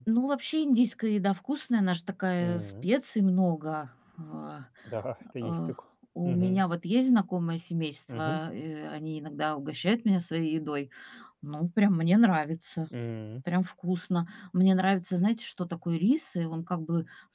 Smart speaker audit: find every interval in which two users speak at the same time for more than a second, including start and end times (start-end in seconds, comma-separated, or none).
none